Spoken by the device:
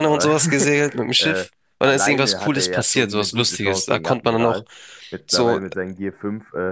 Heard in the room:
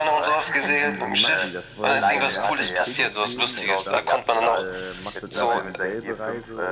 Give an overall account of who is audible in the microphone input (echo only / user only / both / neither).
both